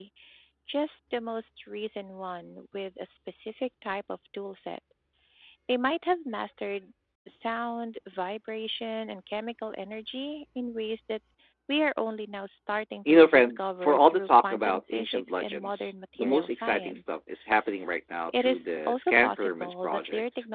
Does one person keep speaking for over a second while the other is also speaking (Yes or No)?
Yes